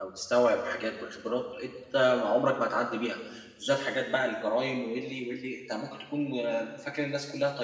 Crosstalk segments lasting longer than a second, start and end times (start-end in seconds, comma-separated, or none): none